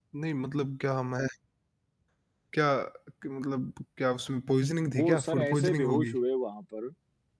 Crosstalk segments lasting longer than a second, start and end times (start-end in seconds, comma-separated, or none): 4.9-6.1